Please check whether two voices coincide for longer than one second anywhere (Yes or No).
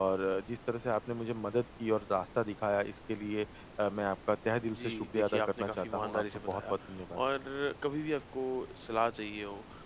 Yes